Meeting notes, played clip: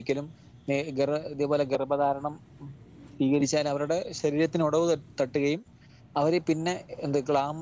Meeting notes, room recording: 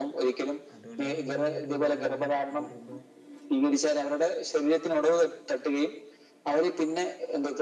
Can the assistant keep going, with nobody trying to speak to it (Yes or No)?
No